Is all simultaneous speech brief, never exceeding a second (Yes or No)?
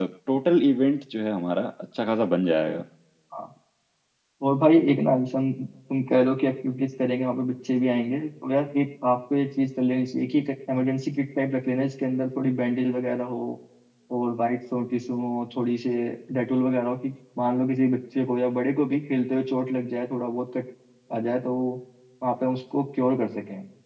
Yes